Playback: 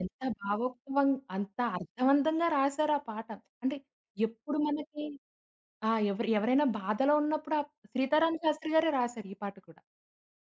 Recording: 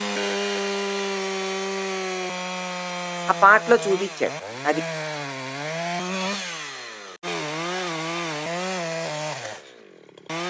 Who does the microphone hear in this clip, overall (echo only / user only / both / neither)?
user only